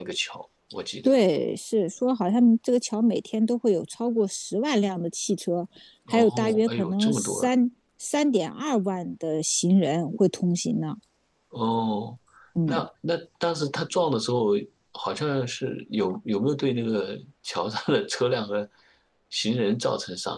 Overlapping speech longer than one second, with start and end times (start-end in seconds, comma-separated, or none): 6.1-7.5